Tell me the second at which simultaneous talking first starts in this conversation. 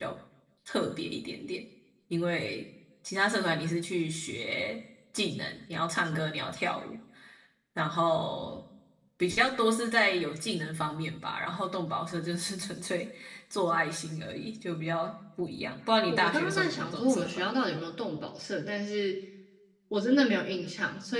16.1 s

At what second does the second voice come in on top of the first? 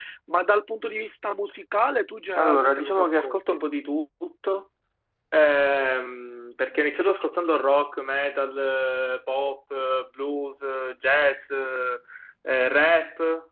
2.3 s

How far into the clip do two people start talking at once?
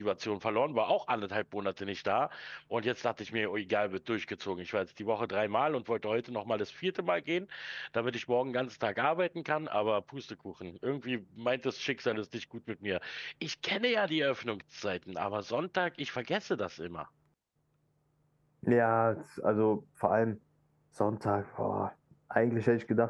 none

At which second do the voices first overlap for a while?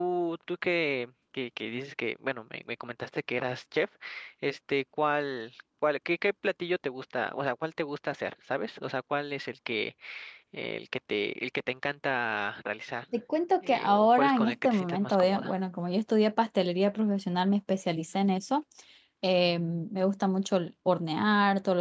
13.7 s

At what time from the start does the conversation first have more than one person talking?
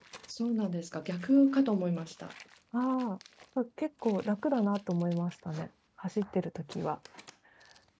none

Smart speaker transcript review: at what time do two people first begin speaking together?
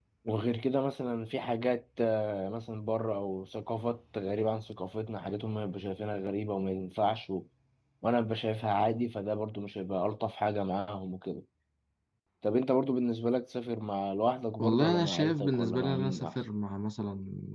14.6 s

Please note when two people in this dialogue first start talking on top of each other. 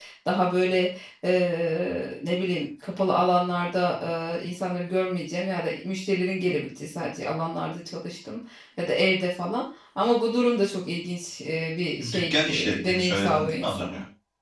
12.0 s

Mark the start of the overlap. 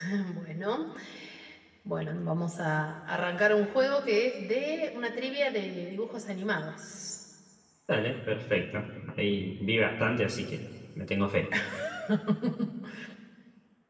none

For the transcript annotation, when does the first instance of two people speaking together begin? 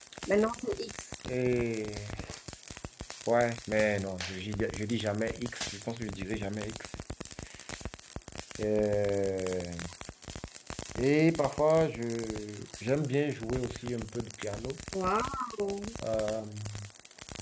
none

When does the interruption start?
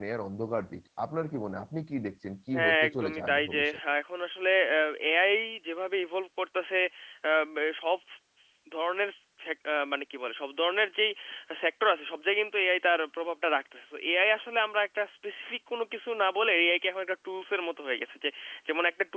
2.5 s

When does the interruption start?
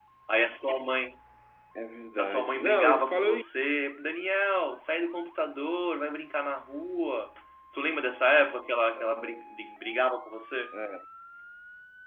2.2 s

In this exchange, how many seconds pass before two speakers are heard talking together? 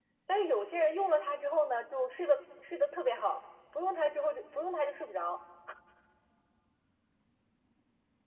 none

